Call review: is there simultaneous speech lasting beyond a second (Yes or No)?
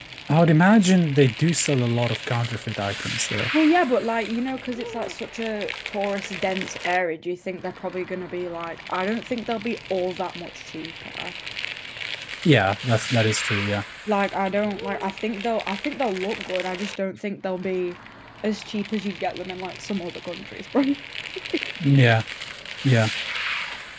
No